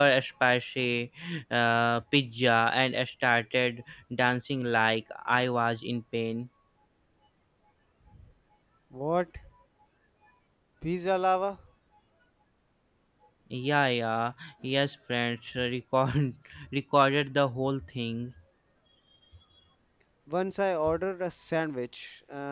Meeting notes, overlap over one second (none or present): none